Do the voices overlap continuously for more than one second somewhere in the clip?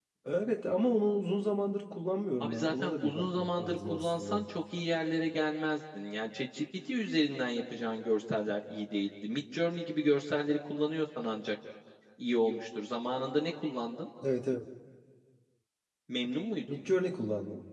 Yes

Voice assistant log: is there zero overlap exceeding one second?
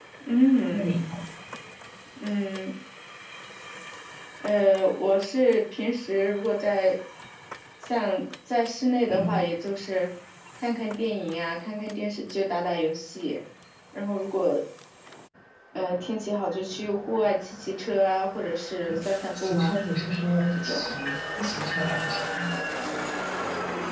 Yes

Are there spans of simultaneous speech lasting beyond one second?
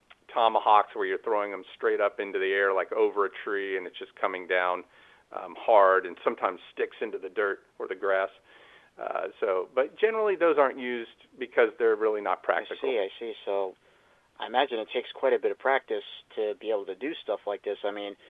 No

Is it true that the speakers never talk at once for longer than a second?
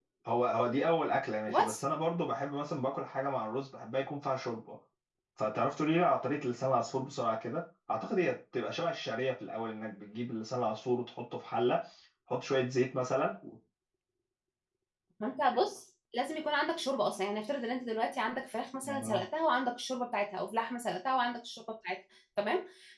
Yes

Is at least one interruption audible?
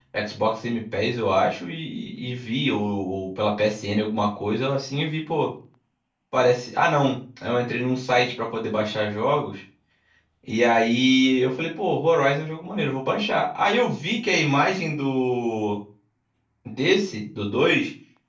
No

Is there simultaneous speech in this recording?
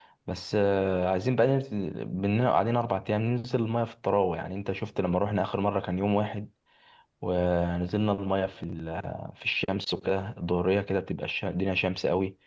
No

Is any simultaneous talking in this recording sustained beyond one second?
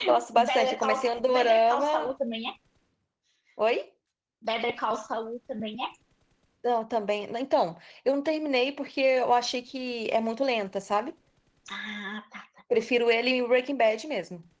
Yes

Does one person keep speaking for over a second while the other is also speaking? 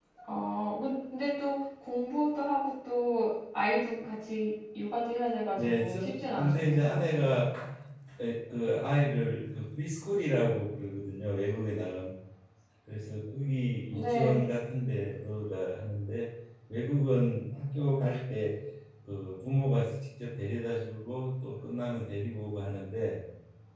Yes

